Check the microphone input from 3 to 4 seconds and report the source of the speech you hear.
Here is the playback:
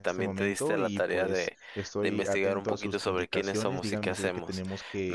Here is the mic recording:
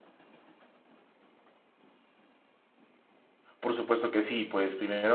user only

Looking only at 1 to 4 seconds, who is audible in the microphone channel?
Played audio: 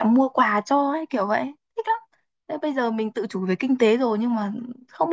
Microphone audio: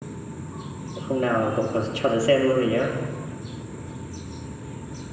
user only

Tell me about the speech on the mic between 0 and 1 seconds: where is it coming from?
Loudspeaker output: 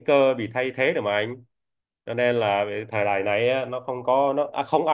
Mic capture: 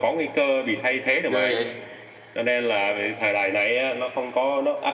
echo only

